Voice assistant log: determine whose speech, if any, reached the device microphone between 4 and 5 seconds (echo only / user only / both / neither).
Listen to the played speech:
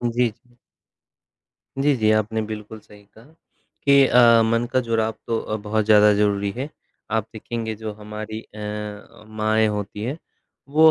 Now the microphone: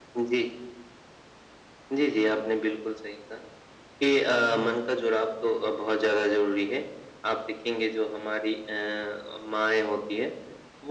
both